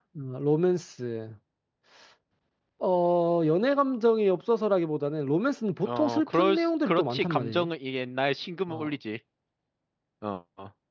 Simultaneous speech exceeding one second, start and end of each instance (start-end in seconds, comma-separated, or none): 5.8-7.7